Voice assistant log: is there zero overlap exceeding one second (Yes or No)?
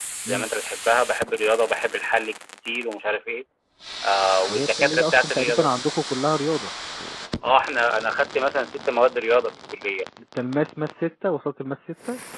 No